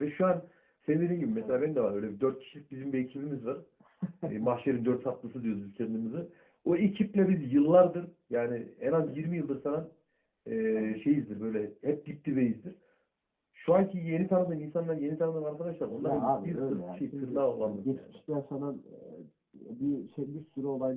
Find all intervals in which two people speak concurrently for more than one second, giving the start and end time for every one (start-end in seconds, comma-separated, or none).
16.0-18.0